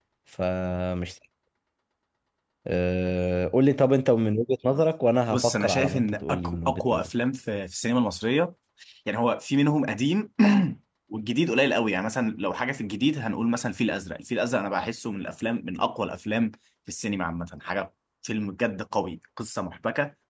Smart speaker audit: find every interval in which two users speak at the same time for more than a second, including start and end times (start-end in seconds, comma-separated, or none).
5.3-7.1